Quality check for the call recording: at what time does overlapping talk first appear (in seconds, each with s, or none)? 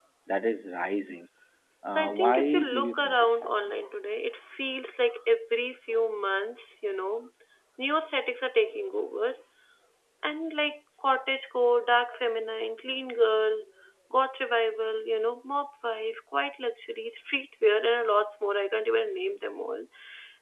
1.9 s